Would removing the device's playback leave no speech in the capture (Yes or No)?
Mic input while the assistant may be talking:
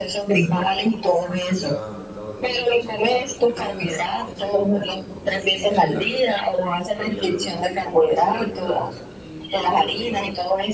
No